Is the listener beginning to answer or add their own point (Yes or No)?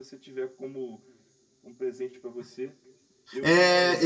Yes